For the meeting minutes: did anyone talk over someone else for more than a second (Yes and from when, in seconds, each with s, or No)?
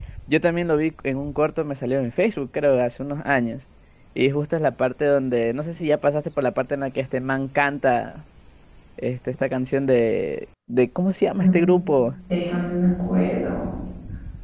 No